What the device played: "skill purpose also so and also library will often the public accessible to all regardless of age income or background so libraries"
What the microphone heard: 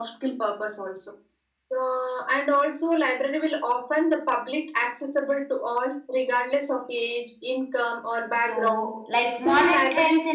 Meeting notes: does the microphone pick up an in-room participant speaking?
Yes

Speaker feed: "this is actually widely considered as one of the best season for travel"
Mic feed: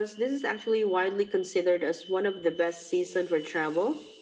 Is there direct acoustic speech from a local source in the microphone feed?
No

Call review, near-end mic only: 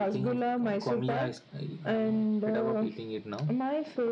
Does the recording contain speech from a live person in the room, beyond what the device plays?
No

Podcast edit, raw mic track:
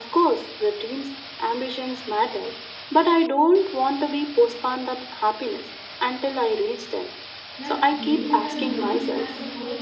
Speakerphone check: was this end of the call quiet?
No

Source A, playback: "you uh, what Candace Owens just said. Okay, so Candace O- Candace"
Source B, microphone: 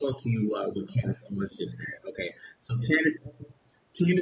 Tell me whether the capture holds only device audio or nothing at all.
Yes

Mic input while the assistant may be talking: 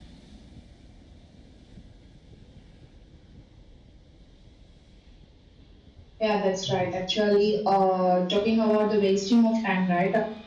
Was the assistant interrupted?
Yes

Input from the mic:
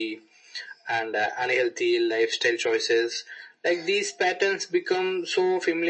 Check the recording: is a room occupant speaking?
No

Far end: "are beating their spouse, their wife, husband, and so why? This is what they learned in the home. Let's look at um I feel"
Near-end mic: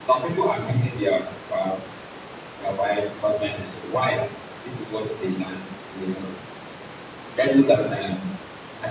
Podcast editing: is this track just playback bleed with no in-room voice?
Yes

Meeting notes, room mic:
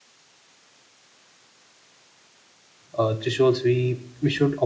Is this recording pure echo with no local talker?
No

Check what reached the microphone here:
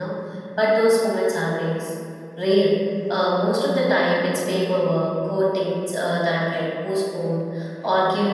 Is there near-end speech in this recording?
Yes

